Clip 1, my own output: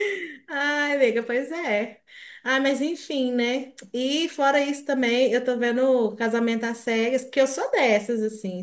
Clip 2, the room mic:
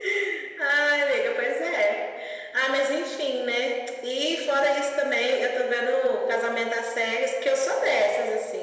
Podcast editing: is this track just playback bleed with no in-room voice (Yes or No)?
Yes